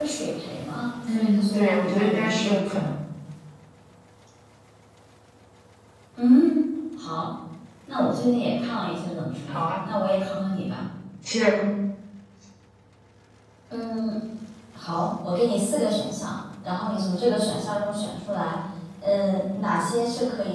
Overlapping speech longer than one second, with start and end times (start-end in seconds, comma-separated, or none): 1.1-2.9